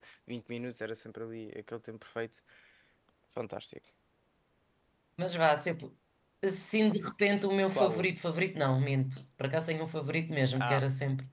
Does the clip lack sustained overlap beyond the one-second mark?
Yes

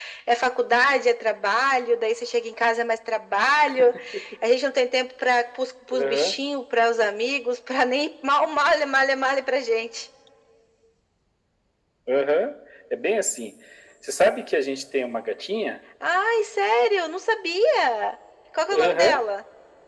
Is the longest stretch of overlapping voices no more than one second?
Yes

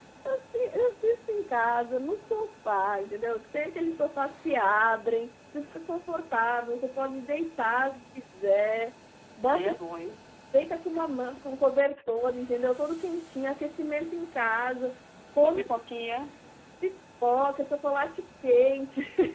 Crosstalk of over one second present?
No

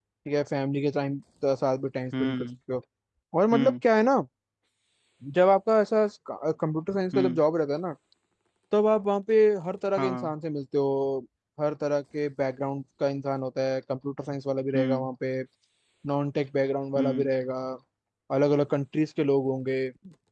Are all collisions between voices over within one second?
Yes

